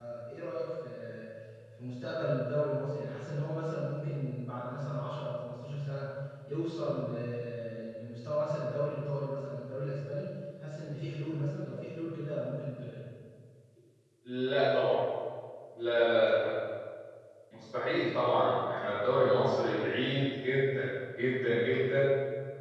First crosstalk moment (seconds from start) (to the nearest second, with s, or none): none